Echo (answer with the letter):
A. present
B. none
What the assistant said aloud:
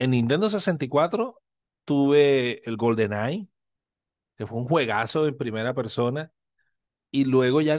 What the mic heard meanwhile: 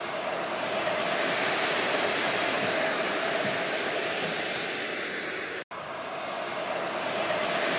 B